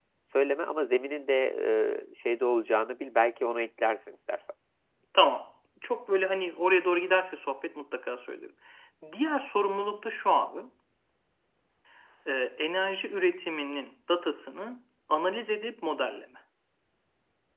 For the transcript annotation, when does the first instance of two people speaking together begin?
none

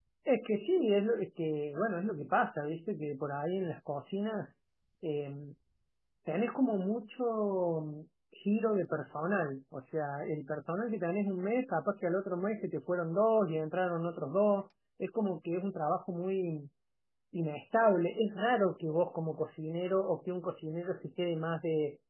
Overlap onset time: none

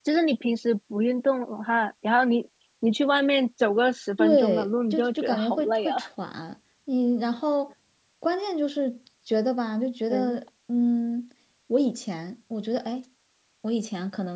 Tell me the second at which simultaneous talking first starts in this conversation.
4.2 s

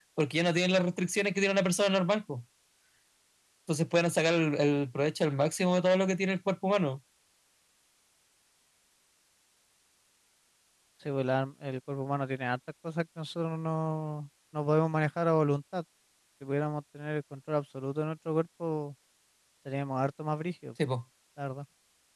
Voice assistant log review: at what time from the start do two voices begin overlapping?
none

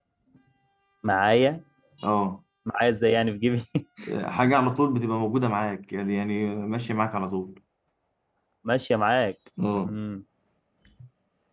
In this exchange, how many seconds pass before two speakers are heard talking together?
none

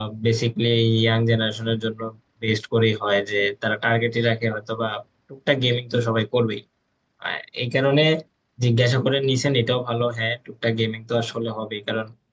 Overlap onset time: none

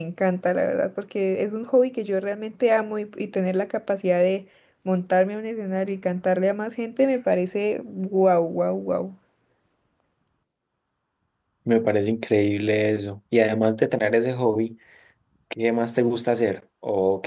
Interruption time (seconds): none

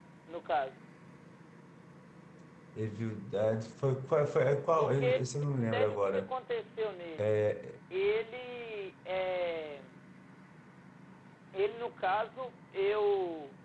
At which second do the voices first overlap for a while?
4.8 s

